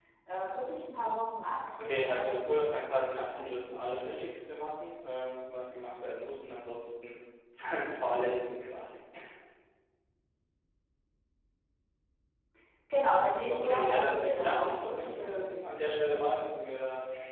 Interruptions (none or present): present